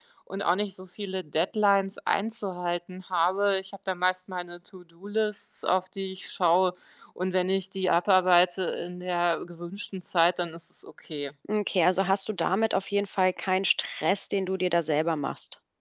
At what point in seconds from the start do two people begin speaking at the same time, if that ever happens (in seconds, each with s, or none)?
none